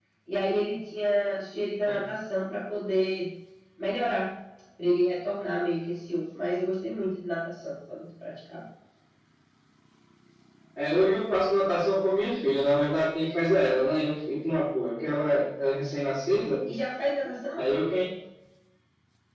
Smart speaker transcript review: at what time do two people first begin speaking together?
none

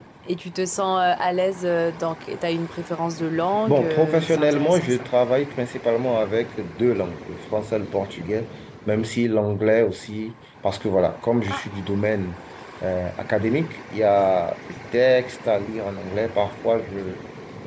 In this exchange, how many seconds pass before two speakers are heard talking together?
3.7 s

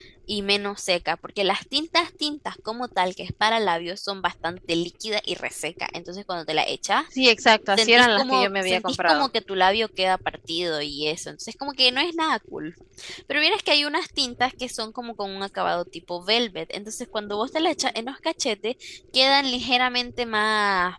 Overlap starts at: 7.8 s

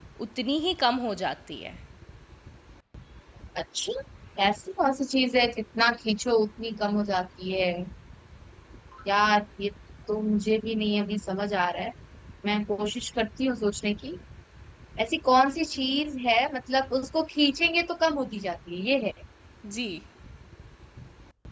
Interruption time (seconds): none

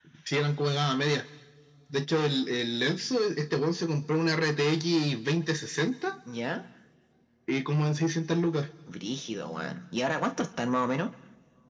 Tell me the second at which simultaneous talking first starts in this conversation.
none

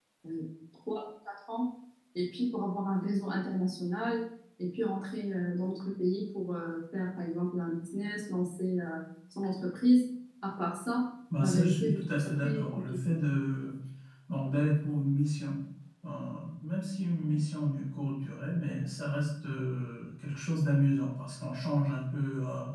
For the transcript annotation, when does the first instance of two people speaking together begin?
11.3 s

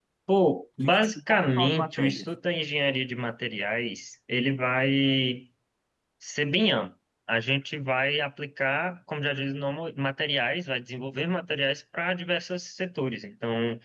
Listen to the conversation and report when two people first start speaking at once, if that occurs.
0.8 s

